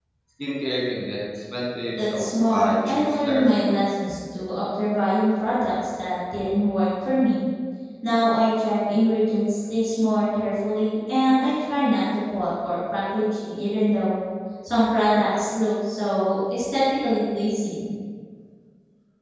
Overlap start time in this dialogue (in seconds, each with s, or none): 2.0 s